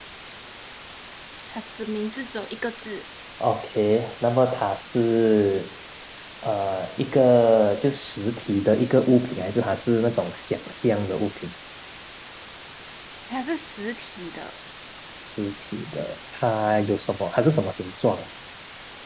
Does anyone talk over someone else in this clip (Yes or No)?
No